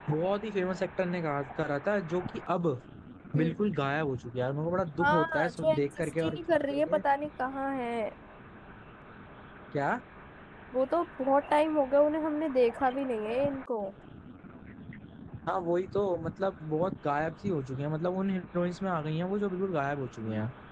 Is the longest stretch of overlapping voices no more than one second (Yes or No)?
No